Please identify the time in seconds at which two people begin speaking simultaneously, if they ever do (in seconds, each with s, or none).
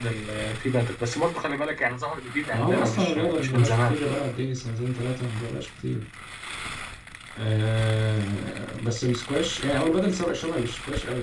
2.5 s